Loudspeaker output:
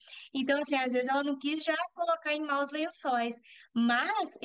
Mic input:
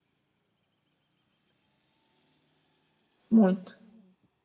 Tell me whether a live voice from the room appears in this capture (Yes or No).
Yes